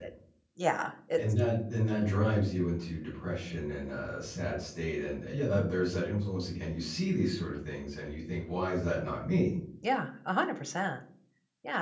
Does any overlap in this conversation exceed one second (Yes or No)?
No